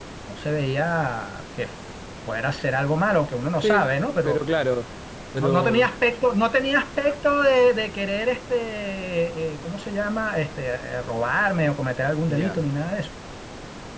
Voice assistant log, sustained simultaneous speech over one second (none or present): none